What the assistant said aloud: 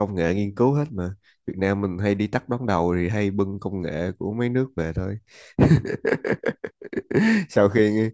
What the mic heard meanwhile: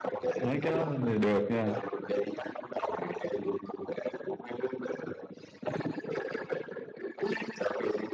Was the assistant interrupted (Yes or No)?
Yes